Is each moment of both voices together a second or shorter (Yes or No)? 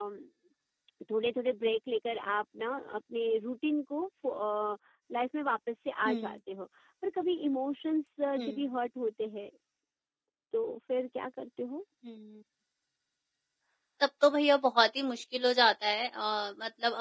Yes